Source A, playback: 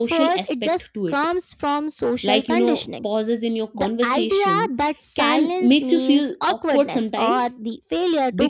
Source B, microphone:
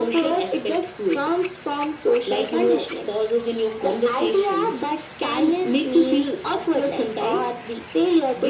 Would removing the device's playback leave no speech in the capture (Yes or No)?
Yes